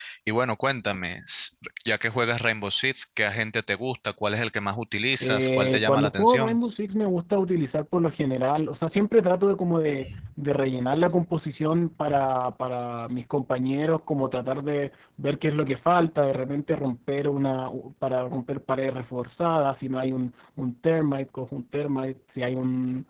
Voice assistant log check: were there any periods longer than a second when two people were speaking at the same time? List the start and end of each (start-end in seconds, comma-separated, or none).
5.2-6.6